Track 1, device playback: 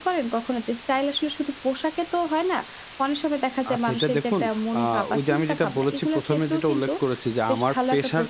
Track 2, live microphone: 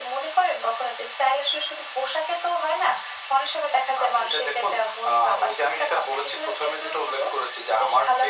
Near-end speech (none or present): none